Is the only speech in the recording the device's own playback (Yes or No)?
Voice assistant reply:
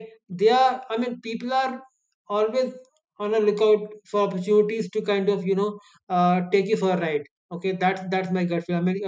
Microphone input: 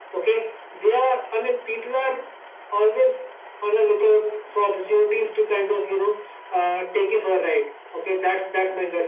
Yes